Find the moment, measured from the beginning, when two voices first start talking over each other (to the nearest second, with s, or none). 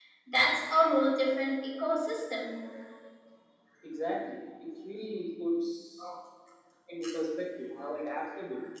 none